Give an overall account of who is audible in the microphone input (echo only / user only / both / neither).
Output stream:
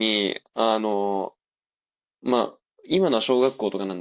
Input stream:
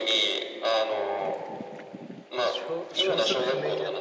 both